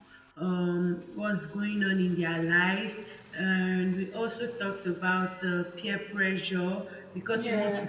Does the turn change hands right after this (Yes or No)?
No